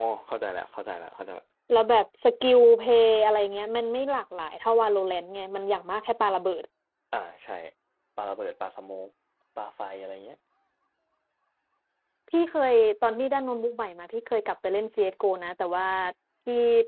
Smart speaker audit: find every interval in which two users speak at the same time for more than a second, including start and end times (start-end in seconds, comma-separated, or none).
none